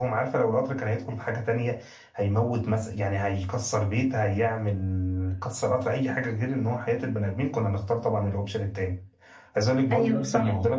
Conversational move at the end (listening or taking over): listening